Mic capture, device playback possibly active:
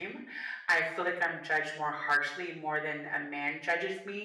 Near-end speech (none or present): present